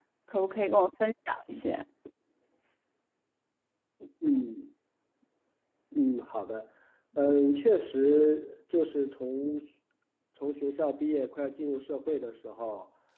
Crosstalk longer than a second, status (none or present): none